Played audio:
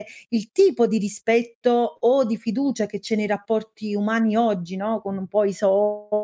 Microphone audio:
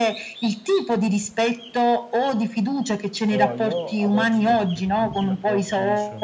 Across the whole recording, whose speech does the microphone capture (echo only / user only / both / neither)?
both